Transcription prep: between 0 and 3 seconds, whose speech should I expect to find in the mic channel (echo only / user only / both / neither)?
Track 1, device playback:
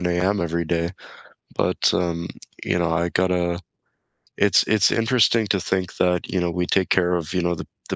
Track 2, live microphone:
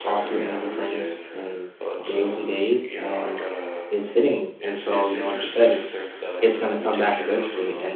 both